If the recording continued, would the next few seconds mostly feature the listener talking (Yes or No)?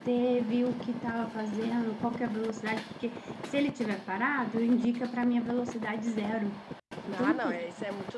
Yes